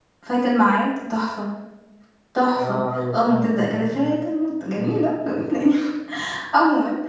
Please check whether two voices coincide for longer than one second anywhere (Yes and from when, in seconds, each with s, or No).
Yes, from 2.6 s